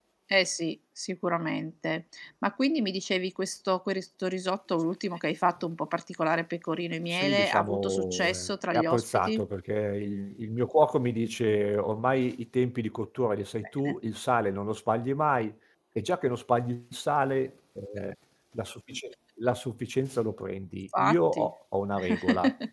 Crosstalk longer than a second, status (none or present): present